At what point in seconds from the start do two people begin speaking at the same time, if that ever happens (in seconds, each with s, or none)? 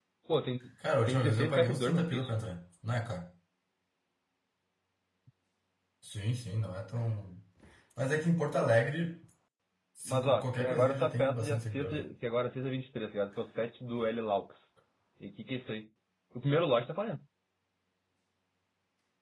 1.1 s